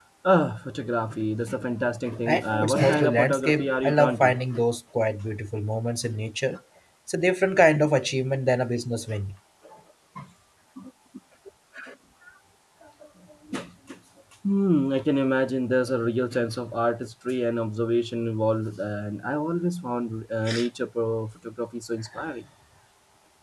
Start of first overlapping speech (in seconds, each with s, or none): 2.2 s